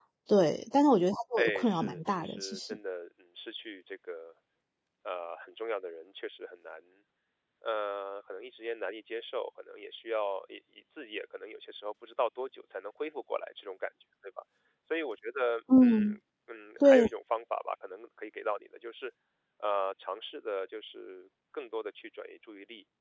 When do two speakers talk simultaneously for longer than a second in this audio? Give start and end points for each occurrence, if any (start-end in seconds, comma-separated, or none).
1.4-2.8